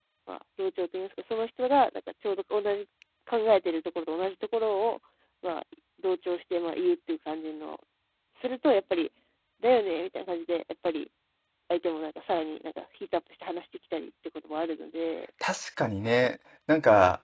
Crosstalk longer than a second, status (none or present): none